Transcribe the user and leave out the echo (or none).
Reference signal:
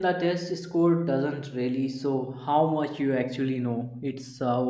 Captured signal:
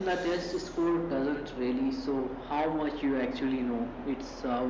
none